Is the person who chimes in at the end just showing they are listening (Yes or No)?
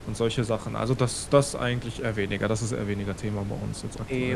No